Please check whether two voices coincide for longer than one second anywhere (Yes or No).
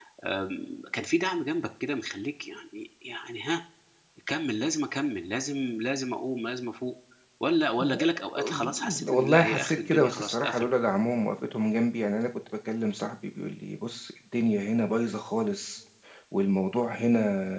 Yes